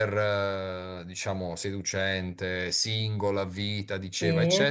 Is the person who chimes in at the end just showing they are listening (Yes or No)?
Yes